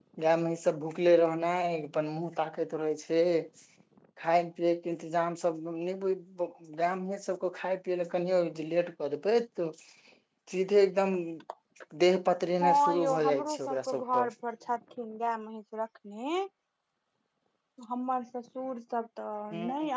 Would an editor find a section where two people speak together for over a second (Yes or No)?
Yes